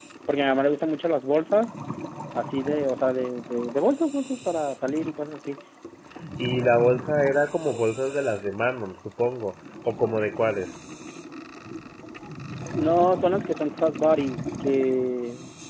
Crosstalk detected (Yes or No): No